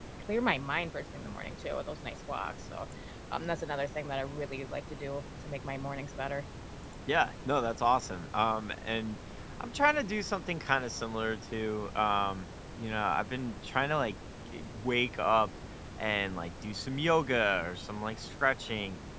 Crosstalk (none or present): none